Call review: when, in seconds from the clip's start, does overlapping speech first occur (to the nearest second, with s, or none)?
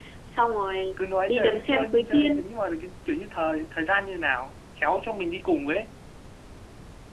1 s